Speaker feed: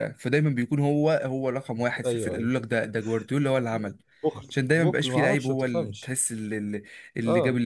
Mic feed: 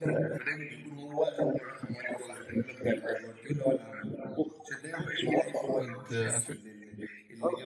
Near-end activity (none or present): present